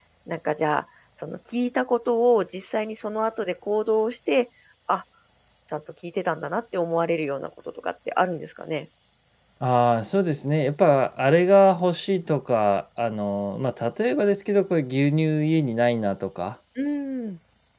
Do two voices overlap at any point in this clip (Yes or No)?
No